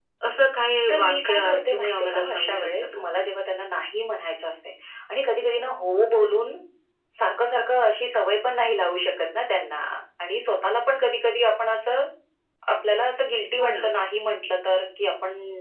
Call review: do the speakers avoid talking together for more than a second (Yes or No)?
No